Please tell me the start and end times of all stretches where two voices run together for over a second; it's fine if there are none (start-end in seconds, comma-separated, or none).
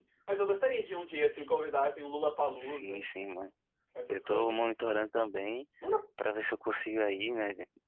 none